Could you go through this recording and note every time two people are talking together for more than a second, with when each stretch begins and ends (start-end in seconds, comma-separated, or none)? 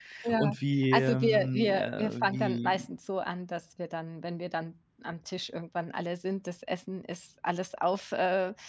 0.9-2.8